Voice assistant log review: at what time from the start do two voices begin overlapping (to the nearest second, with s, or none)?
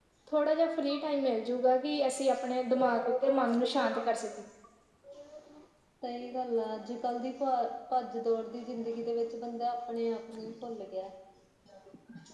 3 s